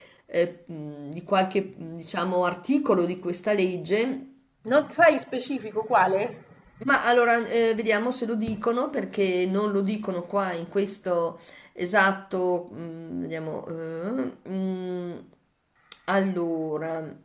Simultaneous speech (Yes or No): No